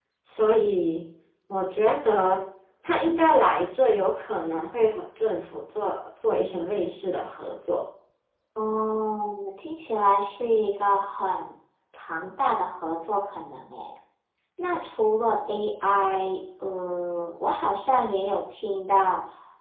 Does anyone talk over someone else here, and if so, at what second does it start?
none

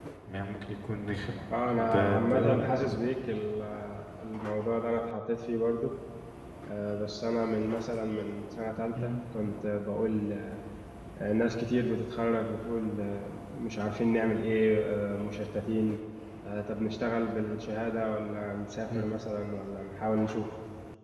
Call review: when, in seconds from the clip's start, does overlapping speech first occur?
1.5 s

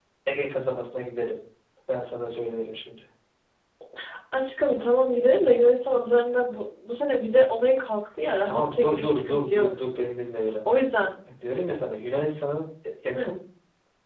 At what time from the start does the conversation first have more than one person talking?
8.4 s

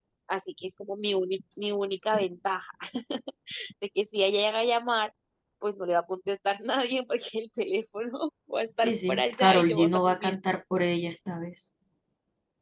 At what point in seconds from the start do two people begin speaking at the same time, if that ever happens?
8.8 s

